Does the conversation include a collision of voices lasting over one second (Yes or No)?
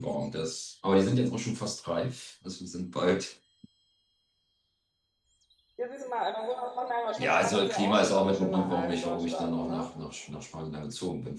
Yes